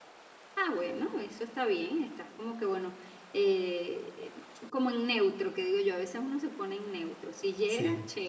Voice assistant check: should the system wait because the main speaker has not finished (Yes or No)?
Yes